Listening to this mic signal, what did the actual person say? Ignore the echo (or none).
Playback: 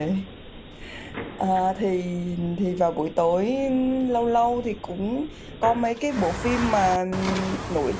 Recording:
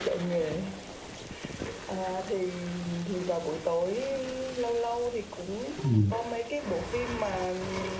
ừ.